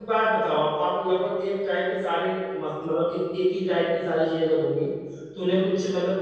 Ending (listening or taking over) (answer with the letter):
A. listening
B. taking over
A